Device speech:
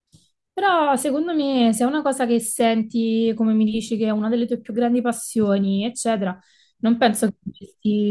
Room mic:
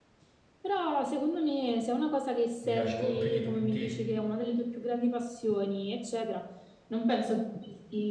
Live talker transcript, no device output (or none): mi piace proprio più di tutti,